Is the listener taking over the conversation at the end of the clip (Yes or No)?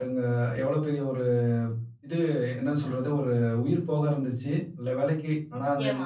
No